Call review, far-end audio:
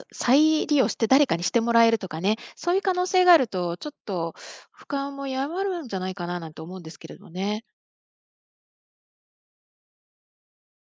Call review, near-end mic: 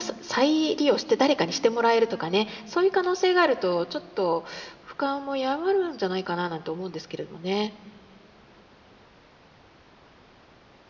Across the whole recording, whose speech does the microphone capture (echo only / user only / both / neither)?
echo only